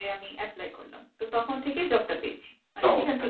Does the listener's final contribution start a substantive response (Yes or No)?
Yes